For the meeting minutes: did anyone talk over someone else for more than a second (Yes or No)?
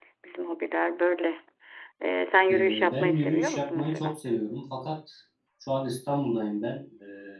Yes